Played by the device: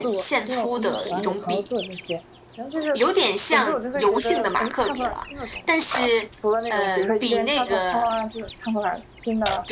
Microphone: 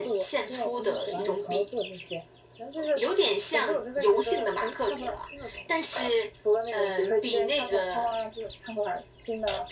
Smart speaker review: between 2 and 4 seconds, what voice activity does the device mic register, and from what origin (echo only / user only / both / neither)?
echo only